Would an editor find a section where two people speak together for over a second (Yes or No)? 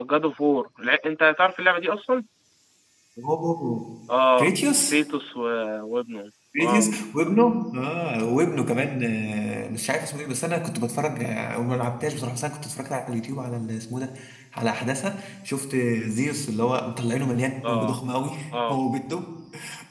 No